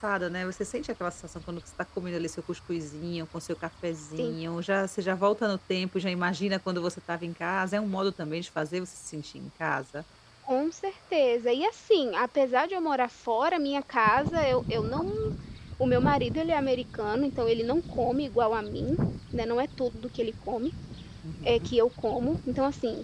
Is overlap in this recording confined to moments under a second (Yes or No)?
Yes